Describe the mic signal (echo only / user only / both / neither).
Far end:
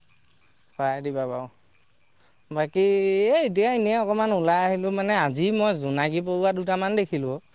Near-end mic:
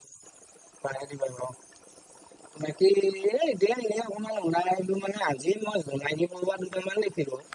echo only